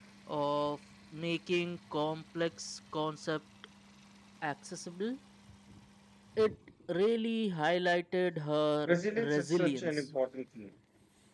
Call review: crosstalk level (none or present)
present